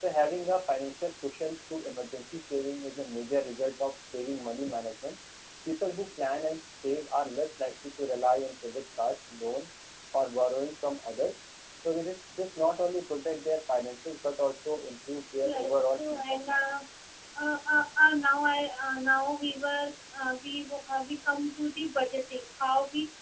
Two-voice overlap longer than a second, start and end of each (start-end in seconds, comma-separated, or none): 15.4-16.7